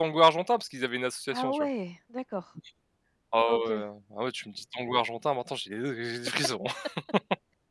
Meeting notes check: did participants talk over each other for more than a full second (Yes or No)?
No